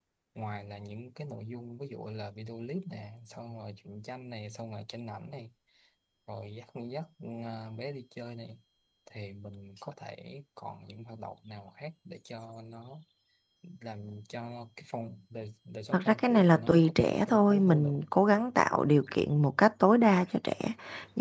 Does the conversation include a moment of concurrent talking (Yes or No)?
Yes